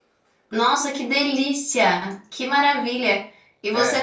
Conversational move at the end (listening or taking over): listening